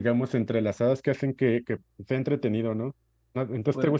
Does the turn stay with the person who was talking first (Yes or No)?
Yes